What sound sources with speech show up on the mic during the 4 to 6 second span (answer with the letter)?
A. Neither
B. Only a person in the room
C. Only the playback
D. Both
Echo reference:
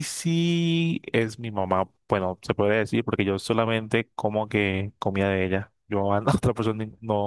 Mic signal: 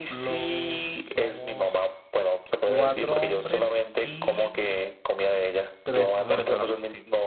D